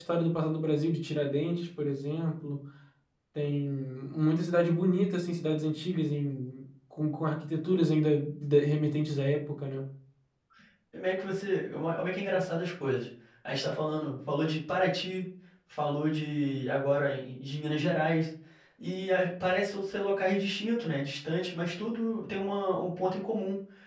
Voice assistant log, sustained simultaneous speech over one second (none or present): none